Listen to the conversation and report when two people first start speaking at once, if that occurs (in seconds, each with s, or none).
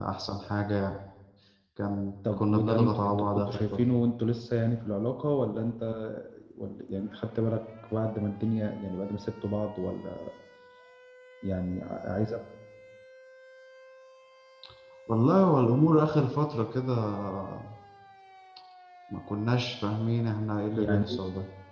2.3 s